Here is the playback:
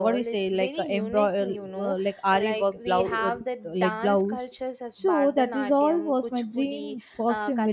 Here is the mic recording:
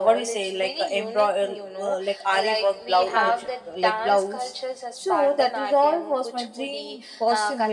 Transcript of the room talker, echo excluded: culture

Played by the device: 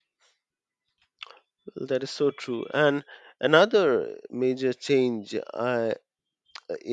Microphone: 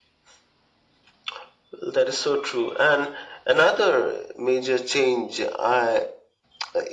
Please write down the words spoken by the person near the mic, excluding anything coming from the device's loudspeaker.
none

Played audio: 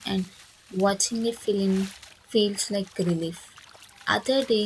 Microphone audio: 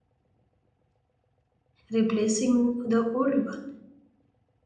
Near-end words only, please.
replacing the old one.

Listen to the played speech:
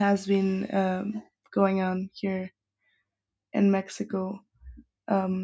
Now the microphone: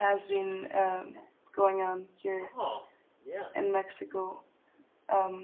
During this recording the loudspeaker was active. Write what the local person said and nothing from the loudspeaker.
Oh, yeah.

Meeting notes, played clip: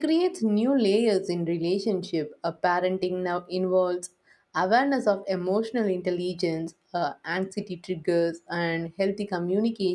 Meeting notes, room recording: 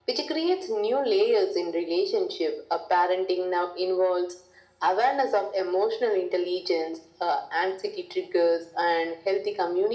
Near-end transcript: none

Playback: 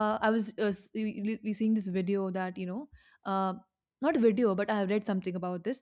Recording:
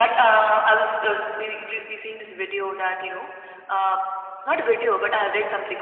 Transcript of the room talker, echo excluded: none

